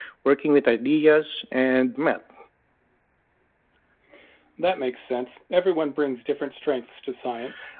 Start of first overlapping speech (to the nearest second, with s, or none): none